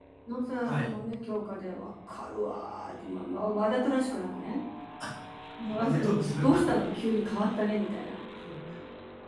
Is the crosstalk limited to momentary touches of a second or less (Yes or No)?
Yes